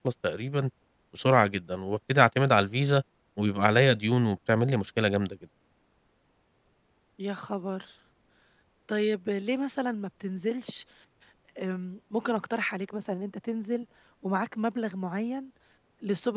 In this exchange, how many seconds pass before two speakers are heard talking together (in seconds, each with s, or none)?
none